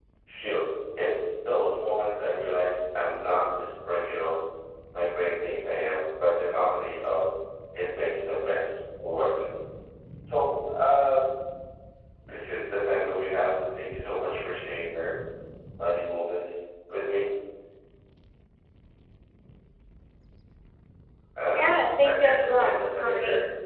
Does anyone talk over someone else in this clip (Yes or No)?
Yes